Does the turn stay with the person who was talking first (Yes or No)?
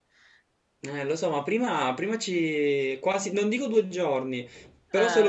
Yes